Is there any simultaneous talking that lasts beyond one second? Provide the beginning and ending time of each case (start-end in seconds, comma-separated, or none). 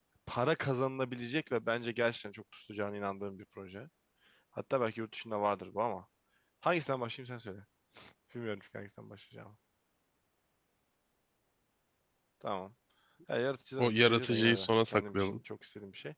13.8-15.4